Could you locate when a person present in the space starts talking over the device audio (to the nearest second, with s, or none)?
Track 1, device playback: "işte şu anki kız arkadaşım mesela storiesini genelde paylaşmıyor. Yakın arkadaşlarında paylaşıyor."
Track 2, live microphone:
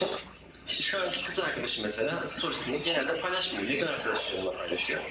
none